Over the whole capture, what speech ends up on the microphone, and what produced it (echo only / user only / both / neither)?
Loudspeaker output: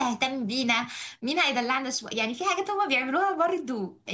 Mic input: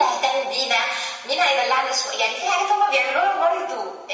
echo only